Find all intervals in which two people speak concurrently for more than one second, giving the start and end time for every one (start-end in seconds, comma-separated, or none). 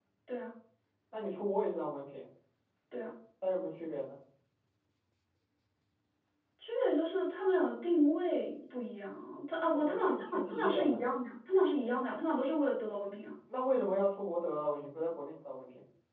9.7-11.0